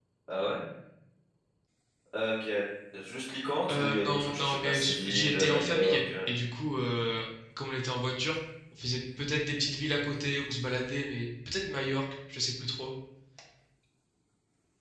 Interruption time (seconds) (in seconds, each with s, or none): 3.7 s